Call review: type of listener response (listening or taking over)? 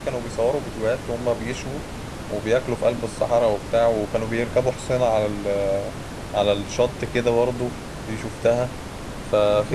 listening